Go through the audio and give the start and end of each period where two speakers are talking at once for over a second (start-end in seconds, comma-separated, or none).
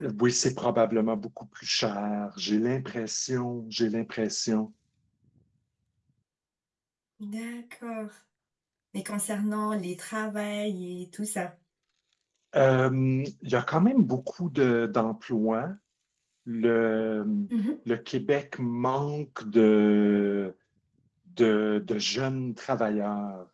none